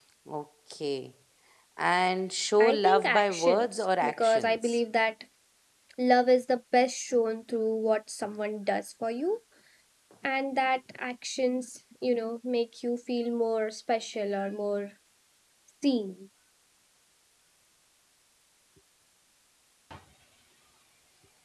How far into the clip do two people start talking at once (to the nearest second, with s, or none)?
3 s